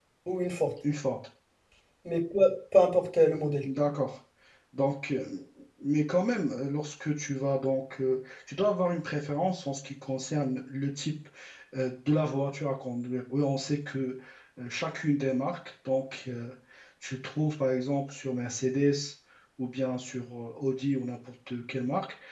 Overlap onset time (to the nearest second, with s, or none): none